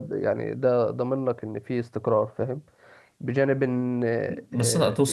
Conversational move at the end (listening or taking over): taking over